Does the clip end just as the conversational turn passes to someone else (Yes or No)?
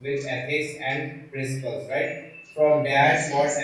No